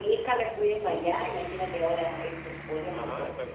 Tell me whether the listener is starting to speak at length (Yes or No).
Yes